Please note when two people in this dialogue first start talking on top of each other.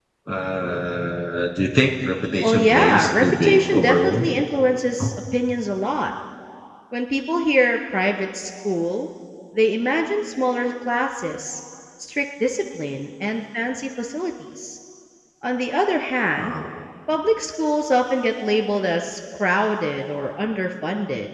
2.4 s

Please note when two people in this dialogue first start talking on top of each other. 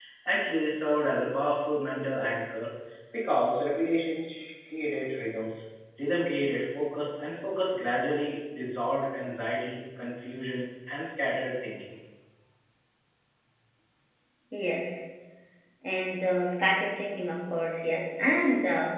none

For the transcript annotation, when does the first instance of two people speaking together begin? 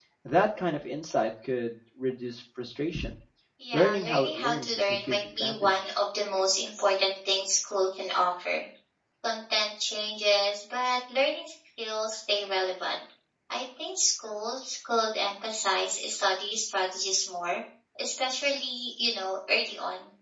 3.7 s

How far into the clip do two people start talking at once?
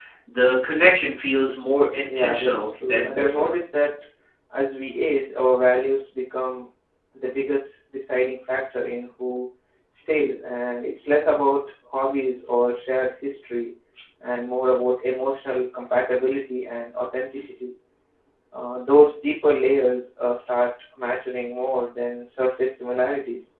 2.1 s

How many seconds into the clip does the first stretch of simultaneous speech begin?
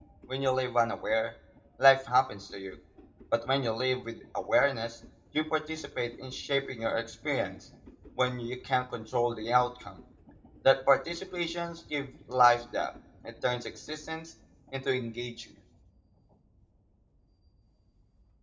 none

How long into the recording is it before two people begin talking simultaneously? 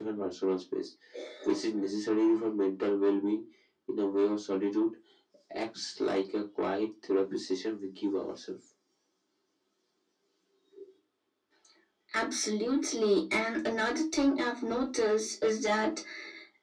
none

